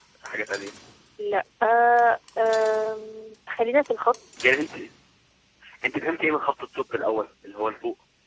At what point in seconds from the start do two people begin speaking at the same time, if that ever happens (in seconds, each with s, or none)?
none